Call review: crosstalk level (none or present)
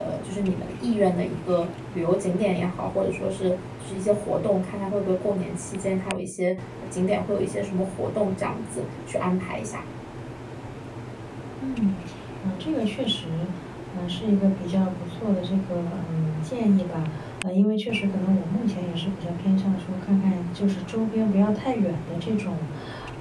none